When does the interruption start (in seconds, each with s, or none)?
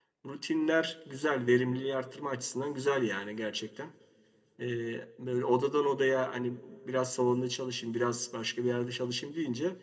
none